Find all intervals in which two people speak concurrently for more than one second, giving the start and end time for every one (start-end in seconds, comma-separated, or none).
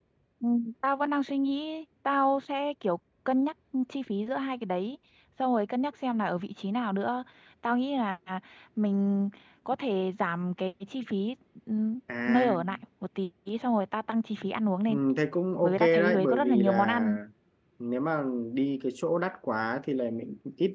15.6-17.0